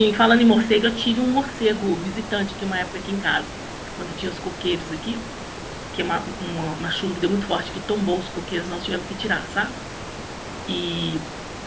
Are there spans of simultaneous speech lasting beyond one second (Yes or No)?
No